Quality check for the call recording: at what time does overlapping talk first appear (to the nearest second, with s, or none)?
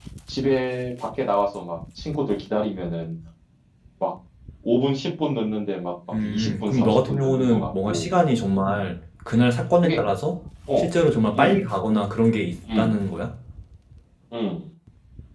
6 s